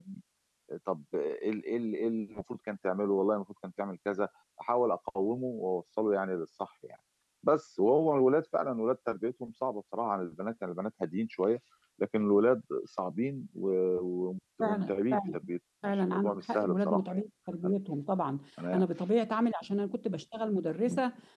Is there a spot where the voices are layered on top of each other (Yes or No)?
Yes